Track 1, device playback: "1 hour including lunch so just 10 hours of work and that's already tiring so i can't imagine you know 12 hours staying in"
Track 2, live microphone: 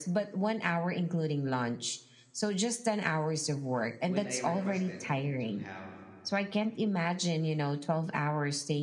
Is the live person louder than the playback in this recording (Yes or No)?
No